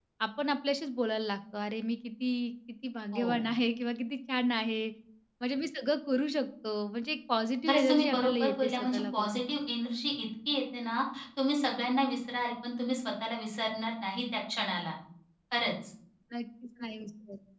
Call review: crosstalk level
present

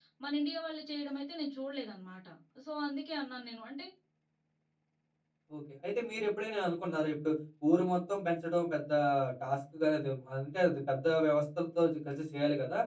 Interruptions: none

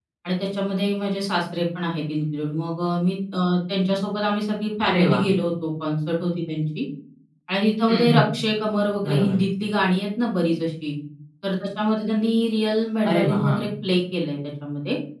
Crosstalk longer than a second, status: none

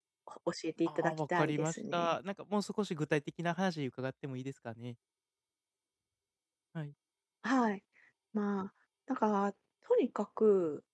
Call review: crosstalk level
present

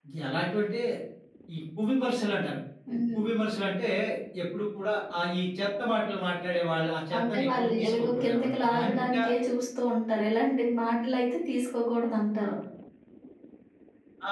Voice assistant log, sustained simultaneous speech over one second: present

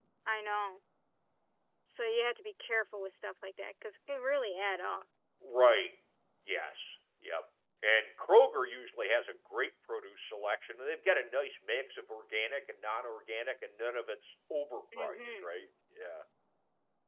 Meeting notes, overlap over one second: none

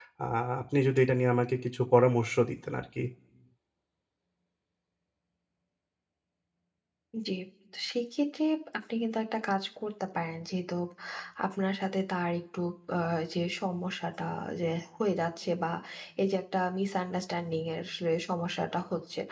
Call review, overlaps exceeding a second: none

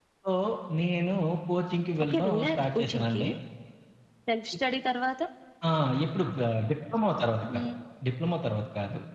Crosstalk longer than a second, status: present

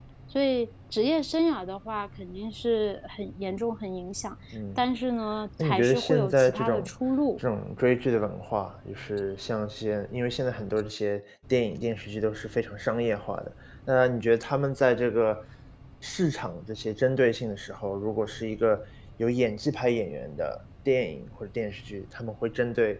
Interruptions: present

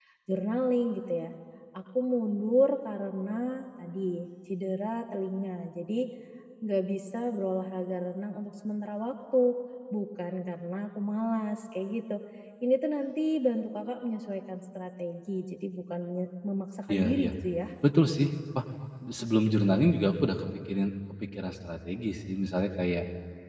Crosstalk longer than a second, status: none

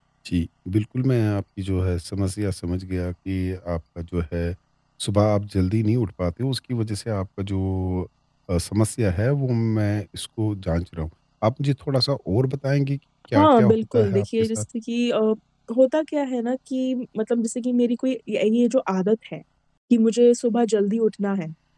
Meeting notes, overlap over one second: present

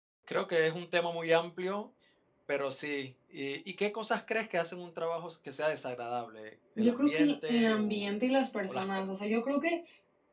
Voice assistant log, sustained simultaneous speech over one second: present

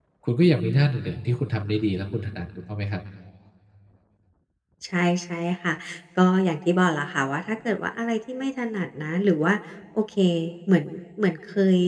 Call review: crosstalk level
none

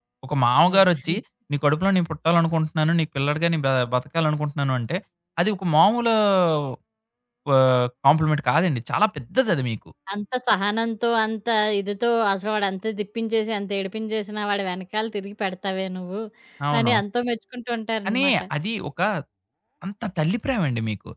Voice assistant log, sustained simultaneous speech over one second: none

